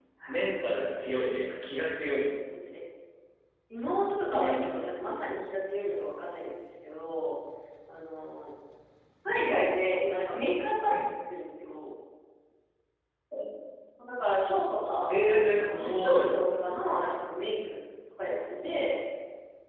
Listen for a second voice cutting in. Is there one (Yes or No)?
Yes